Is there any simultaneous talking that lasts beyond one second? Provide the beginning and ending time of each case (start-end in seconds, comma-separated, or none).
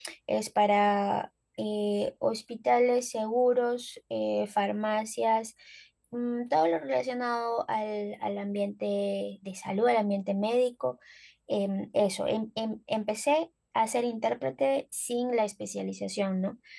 none